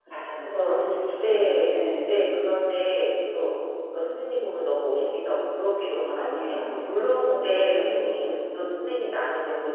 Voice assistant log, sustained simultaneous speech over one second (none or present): present